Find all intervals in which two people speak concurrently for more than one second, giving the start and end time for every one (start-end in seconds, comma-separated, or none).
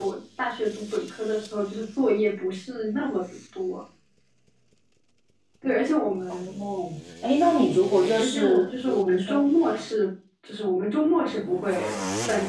8.2-9.4